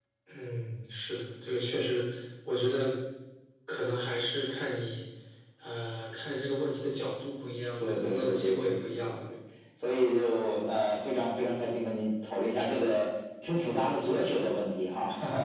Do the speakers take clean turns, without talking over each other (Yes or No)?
No